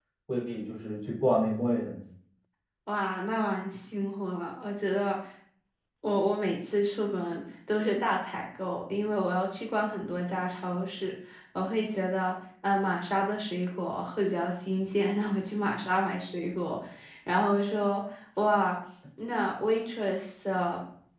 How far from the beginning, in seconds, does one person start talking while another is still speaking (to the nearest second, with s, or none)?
none